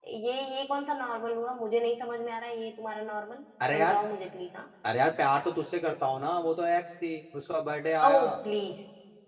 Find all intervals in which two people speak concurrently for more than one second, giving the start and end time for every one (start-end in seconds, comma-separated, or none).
none